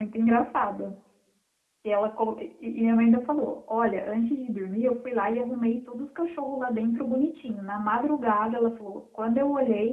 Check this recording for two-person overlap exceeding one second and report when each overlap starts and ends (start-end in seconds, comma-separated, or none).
none